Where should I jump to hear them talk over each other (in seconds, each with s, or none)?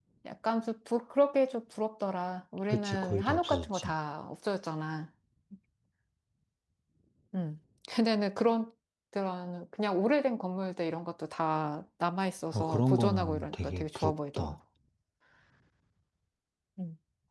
2.7 s